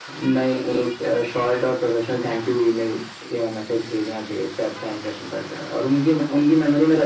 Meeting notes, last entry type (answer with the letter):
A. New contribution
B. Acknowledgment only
B